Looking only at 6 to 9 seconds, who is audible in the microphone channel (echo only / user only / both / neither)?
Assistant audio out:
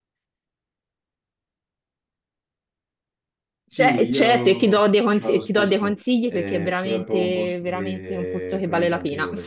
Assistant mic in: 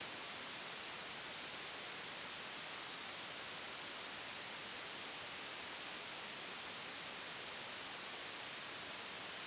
neither